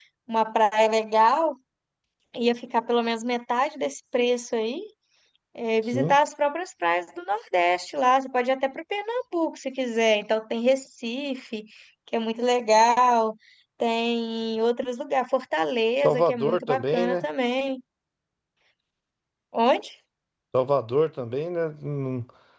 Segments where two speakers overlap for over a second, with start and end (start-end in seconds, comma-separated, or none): 16.0-17.2